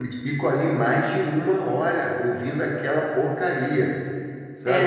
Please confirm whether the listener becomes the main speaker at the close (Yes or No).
Yes